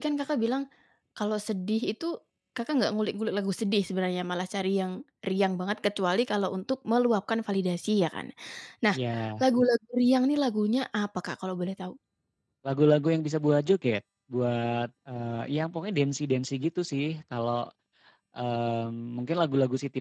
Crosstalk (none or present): none